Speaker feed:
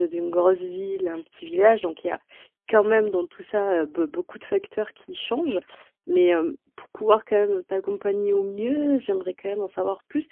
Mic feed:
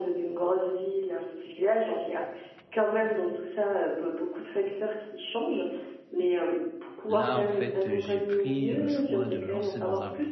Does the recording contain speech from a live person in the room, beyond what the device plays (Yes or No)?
Yes